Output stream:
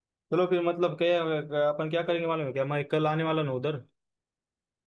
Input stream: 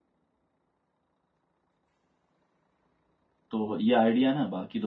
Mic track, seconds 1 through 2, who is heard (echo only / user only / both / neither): neither